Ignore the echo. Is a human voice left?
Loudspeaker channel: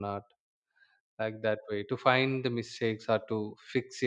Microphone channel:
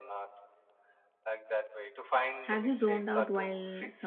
Yes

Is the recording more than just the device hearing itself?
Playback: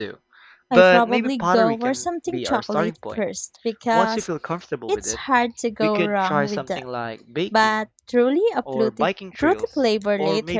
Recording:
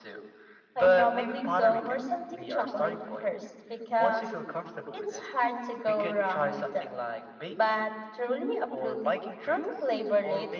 No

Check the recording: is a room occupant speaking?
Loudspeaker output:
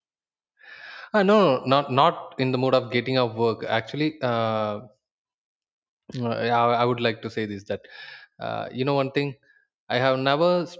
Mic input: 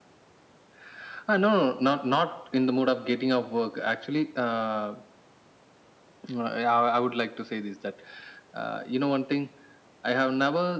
No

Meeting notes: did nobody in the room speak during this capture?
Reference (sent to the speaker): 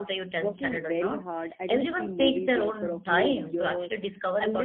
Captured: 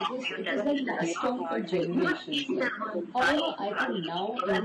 No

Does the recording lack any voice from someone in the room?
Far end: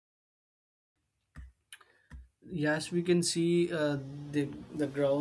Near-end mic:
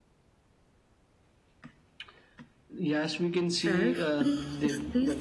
No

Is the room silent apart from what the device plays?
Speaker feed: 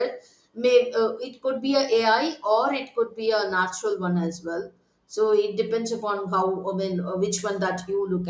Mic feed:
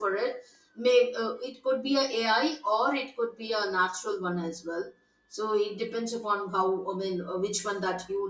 Yes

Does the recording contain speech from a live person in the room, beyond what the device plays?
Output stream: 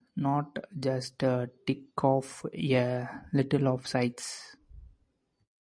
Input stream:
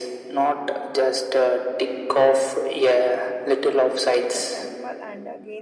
Yes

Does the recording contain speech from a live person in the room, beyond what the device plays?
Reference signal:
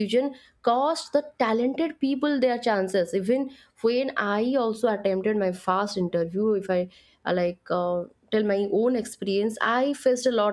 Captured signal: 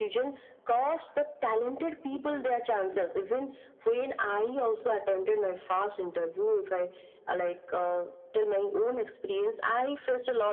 Yes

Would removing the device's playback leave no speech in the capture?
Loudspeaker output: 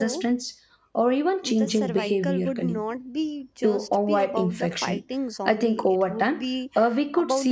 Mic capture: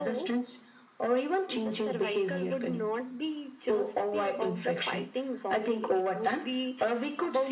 Yes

